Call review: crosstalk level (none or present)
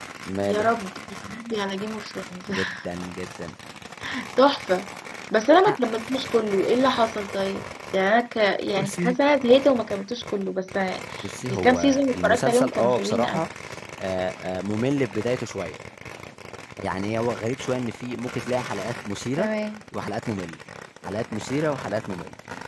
present